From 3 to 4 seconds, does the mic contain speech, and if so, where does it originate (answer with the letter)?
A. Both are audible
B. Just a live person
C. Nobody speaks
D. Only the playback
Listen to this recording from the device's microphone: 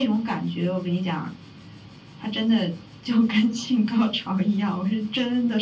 D